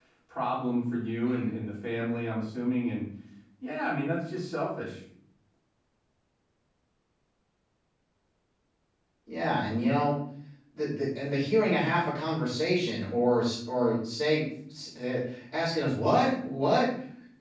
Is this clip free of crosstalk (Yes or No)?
Yes